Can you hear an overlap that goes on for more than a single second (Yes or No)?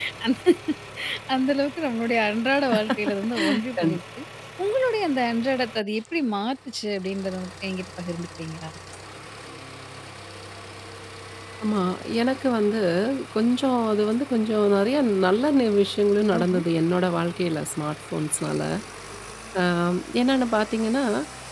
No